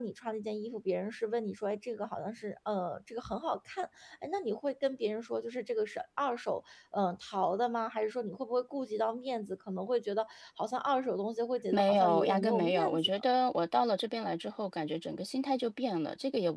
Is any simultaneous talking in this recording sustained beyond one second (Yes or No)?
Yes